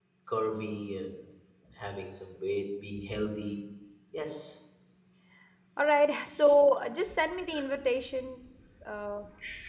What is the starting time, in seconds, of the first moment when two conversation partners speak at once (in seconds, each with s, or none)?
none